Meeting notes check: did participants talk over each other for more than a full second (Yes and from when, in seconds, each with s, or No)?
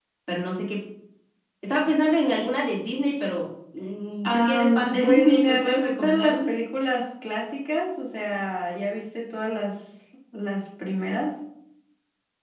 Yes, from 4.2 s